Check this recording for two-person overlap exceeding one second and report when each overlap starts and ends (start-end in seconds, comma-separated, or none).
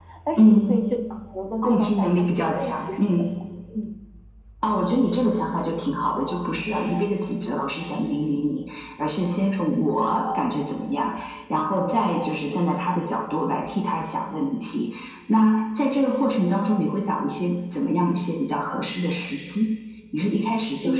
1.6-3.2